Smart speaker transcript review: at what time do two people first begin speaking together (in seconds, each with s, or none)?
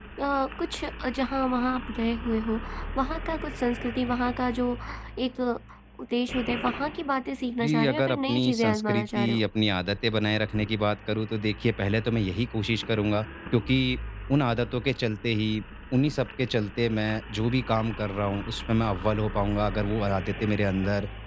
7.6 s